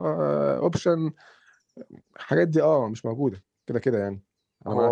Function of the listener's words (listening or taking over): taking over